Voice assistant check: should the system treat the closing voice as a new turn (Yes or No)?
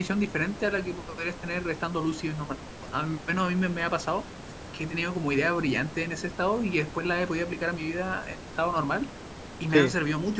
No